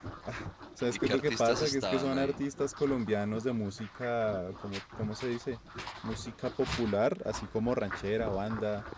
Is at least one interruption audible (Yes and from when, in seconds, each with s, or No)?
Yes, from 1.0 s